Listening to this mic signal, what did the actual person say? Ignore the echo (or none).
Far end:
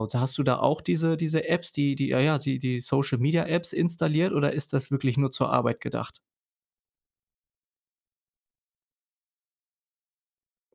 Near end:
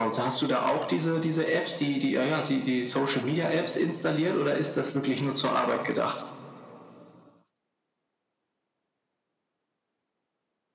none